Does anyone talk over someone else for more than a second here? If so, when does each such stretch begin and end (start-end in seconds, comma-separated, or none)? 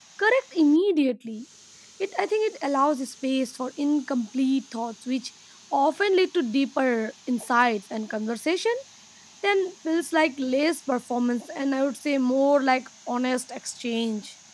none